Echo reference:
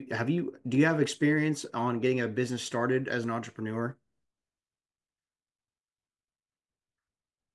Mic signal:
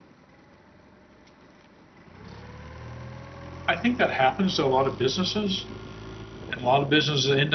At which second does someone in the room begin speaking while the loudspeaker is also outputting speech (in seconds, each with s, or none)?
3.7 s